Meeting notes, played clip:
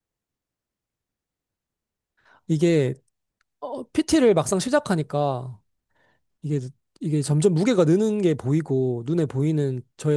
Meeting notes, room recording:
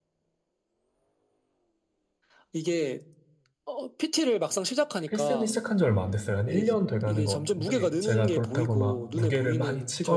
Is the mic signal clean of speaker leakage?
No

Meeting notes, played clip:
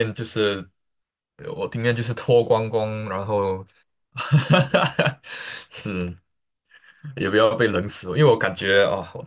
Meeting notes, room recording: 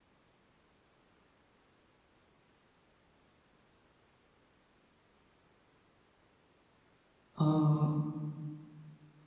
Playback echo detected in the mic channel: No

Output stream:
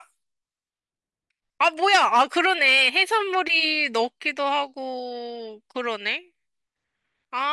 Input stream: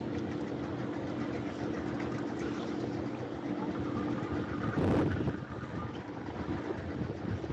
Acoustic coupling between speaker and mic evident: No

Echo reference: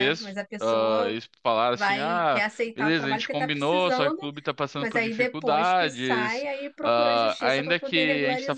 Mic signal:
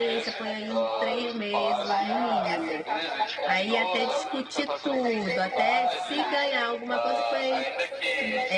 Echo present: Yes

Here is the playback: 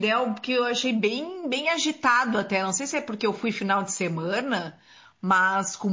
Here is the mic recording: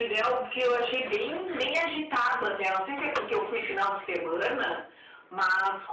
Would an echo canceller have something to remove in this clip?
Yes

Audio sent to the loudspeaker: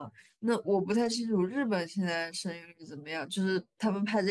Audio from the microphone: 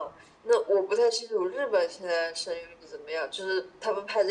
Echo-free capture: No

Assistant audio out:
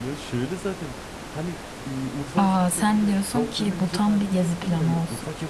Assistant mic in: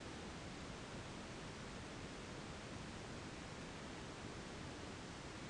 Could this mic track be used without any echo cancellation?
Yes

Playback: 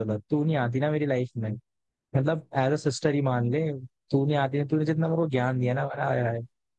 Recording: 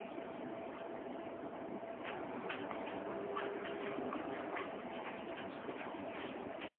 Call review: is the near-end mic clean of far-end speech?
Yes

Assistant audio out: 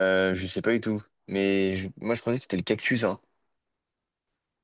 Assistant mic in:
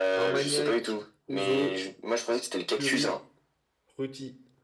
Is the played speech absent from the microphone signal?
No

